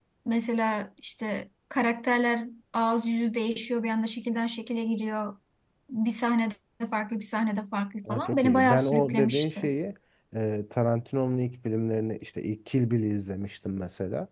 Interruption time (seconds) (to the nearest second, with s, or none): 8 s